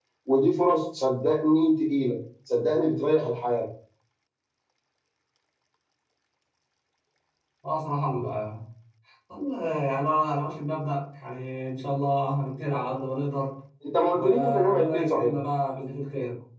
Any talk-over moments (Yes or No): Yes